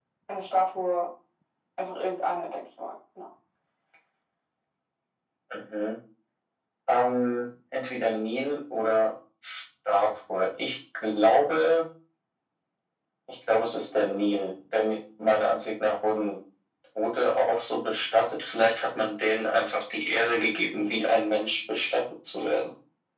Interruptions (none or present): none